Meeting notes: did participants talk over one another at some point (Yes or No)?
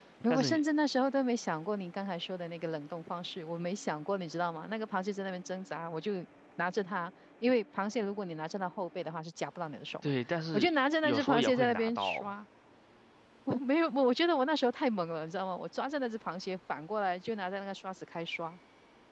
Yes